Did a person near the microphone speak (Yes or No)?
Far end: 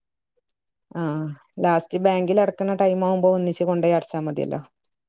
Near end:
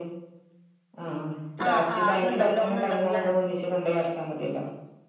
Yes